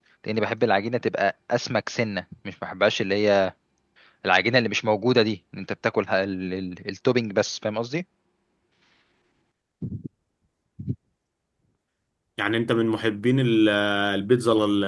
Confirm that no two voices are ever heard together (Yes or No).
Yes